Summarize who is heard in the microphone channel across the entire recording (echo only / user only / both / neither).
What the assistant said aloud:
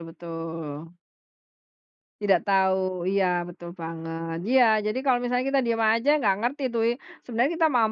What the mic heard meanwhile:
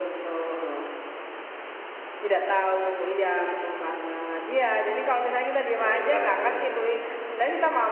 both